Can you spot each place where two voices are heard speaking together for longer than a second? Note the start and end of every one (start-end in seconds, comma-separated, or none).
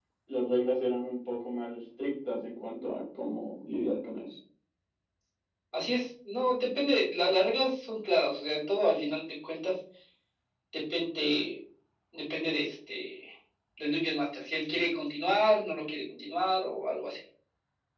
none